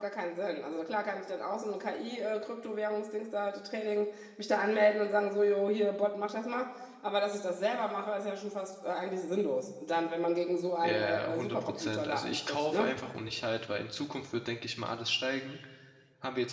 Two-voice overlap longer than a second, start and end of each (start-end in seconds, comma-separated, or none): 10.8-12.9